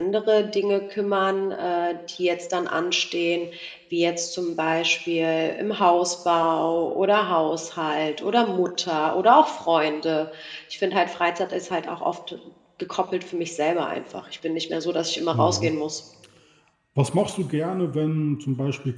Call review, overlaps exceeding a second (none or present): none